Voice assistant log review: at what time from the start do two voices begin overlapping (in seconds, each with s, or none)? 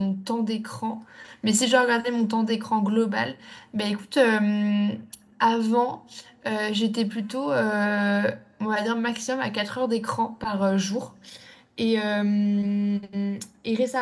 none